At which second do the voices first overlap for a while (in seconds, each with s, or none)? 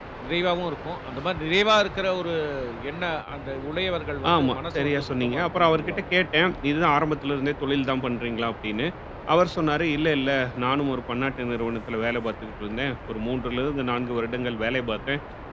4.2 s